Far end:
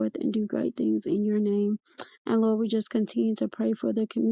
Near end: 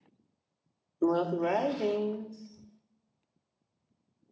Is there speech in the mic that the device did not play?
Yes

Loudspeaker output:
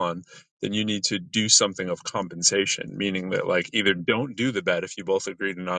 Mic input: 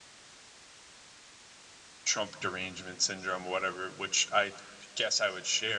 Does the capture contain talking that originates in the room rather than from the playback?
Yes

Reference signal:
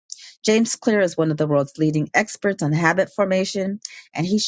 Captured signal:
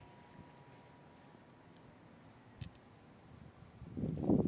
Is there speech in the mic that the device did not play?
No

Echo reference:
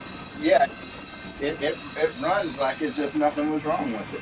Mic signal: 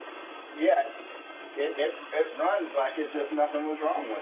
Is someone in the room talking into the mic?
No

